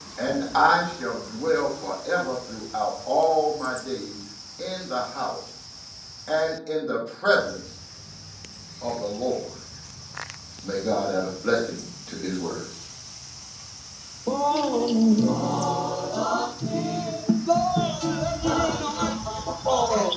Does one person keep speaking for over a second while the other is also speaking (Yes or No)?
No